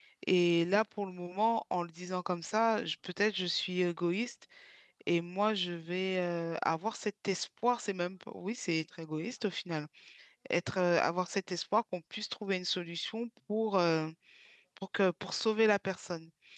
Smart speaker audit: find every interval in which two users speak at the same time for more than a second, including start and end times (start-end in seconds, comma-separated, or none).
none